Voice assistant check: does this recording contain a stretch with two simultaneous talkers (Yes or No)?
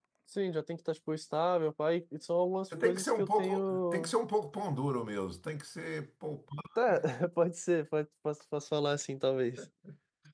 Yes